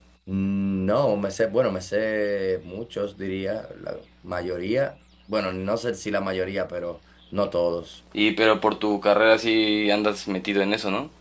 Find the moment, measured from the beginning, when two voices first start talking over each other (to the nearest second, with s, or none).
none